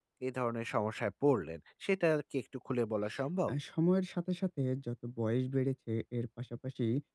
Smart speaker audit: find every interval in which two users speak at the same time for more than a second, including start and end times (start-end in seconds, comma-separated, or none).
none